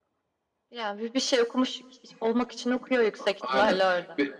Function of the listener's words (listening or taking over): taking over